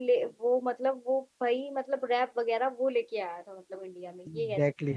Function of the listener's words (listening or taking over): taking over